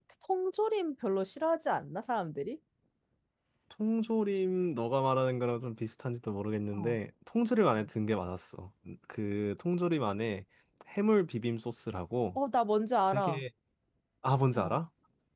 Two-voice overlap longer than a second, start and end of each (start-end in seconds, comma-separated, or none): none